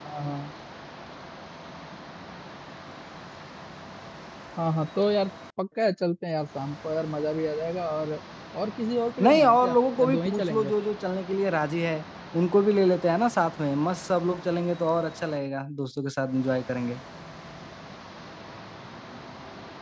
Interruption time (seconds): 9.2 s

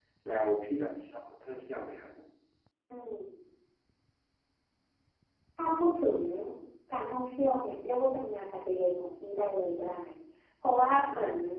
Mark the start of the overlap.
none

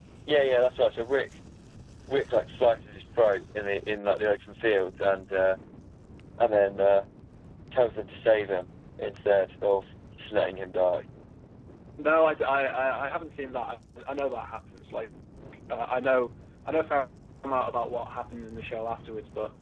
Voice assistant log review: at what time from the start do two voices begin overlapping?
none

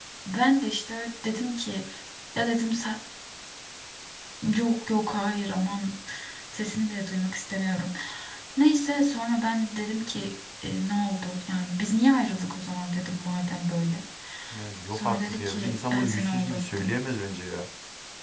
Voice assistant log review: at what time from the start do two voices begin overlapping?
14.9 s

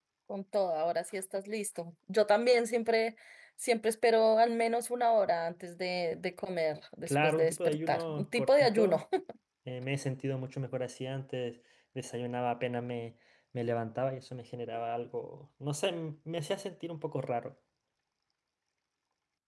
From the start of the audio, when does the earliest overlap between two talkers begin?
7.1 s

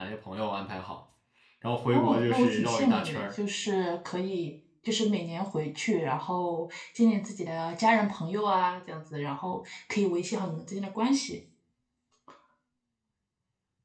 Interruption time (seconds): 1.9 s

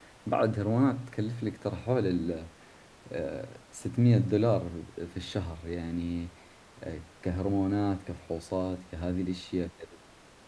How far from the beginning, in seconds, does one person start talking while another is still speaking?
none

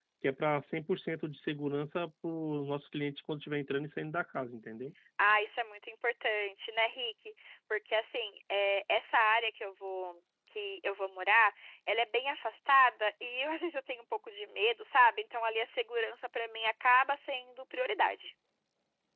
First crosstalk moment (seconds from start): none

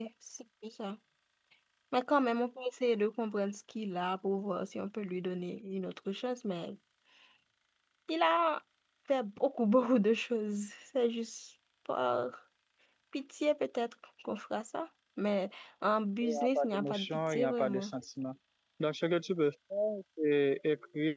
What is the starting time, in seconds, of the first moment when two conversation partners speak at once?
16.2 s

